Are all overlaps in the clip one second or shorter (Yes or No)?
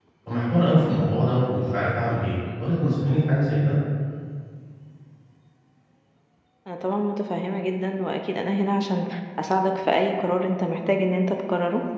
Yes